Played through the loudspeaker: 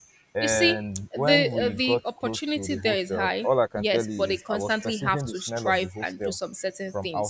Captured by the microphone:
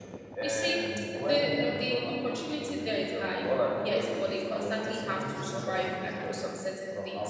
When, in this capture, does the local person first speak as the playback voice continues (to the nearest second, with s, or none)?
none